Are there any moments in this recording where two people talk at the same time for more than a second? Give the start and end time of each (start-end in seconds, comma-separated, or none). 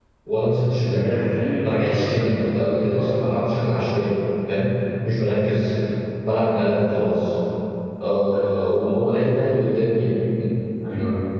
1.6-3.0